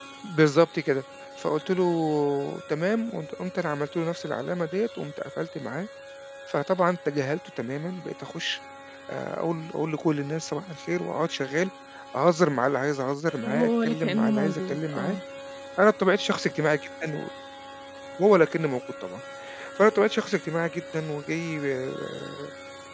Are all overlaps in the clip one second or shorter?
No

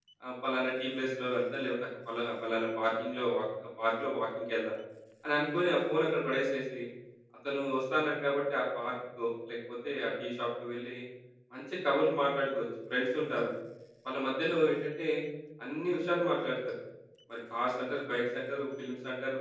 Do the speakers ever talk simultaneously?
No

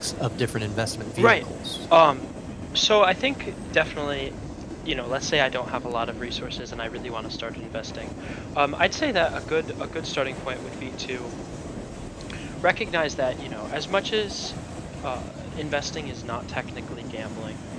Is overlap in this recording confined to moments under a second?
Yes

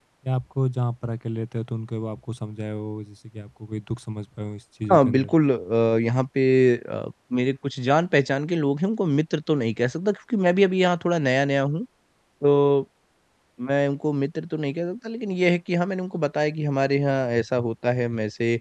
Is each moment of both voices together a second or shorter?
Yes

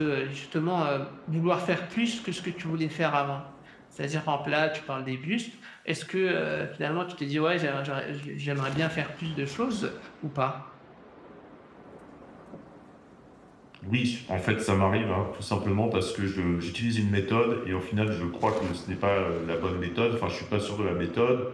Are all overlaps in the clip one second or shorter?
Yes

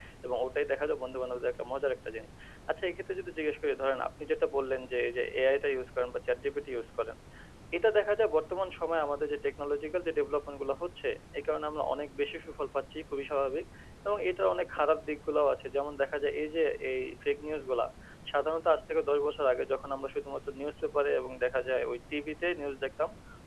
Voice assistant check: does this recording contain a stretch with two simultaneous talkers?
No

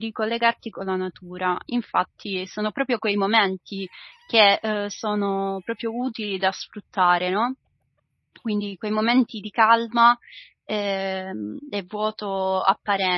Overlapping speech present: No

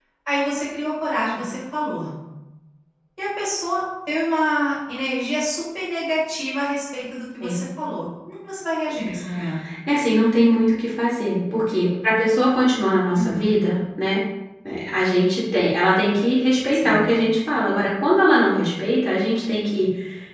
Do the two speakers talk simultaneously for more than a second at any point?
No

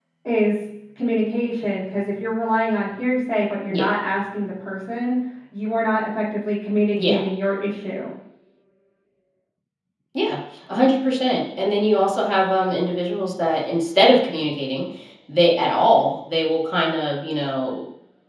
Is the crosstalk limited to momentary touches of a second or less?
Yes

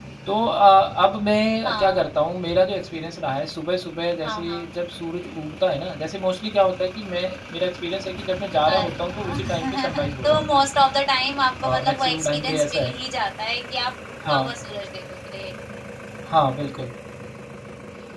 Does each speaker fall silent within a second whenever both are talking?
No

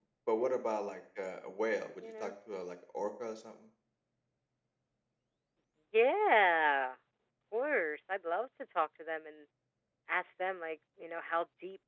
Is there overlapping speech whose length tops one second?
No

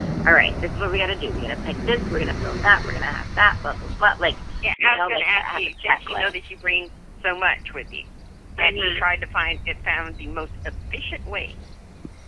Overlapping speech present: Yes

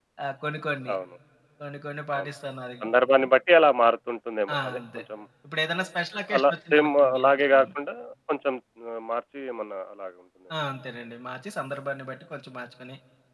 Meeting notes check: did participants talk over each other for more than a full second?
Yes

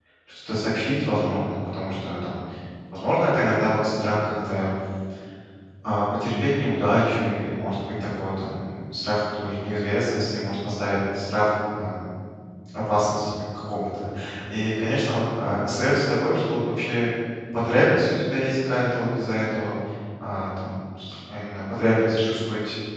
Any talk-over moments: No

